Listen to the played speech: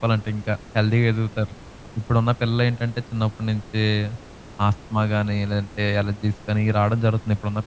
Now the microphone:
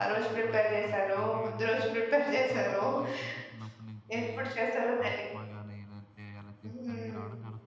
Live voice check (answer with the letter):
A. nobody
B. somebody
B